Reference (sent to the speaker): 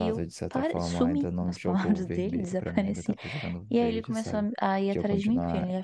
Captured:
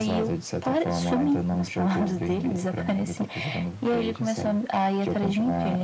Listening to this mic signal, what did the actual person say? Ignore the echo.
none

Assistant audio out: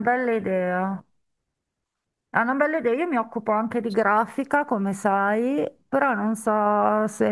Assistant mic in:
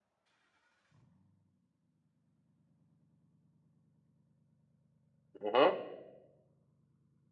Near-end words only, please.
Mhm,

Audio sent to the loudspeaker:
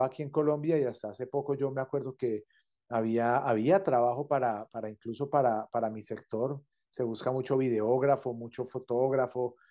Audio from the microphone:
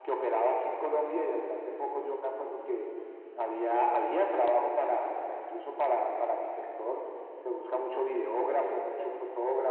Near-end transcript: none

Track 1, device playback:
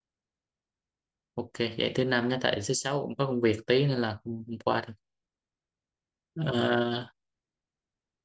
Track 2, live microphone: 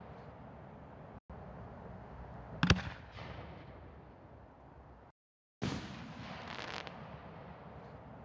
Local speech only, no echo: none

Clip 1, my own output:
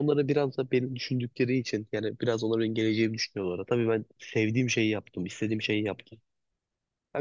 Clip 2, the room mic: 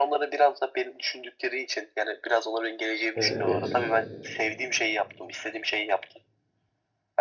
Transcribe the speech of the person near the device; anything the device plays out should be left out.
Yani evet.

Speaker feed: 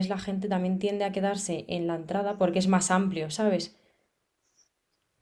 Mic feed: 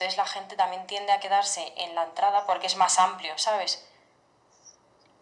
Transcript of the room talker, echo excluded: none

